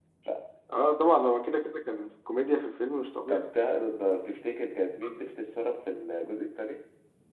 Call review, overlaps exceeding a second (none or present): none